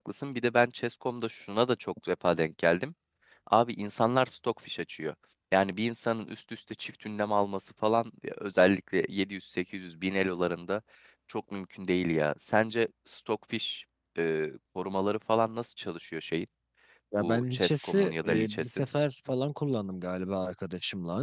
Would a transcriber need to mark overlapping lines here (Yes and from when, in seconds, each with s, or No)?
Yes, from 17.2 s